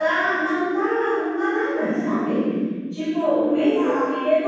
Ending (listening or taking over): listening